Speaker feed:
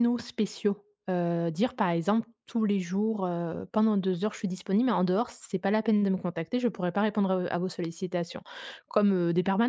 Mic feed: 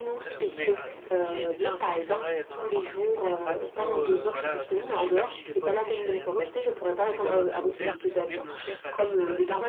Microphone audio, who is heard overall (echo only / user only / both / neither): both